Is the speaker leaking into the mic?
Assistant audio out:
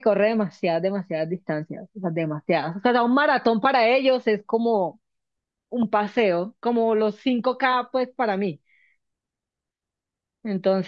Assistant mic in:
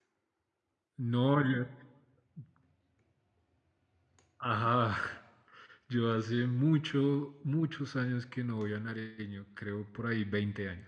No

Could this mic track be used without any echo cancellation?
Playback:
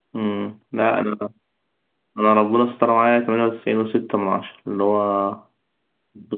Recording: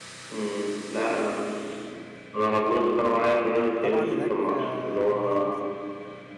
No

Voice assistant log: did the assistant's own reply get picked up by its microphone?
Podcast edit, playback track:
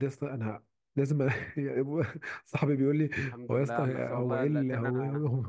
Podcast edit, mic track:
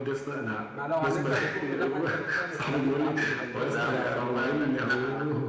Yes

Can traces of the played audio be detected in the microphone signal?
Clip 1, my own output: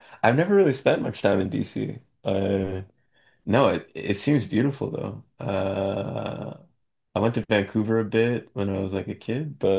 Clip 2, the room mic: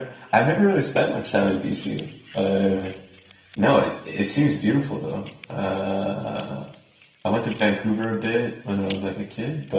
Yes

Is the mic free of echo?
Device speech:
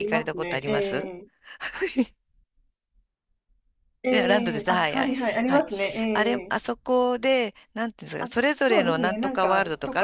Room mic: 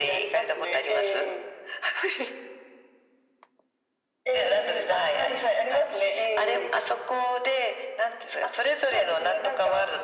No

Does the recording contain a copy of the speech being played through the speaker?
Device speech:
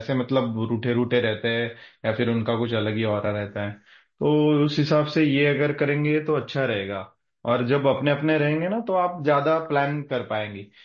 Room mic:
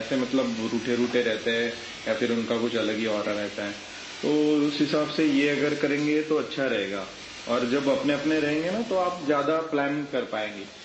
Yes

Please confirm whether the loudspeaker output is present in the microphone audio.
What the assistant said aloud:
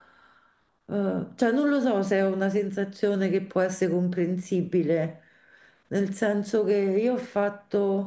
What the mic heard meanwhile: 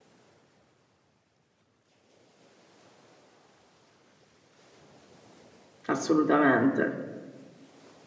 No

